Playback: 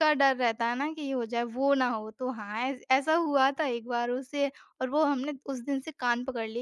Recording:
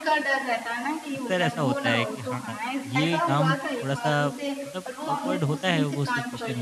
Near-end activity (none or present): present